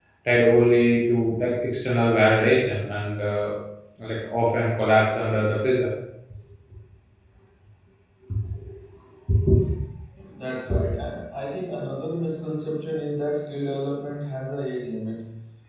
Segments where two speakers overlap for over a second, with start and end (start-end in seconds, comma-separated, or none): none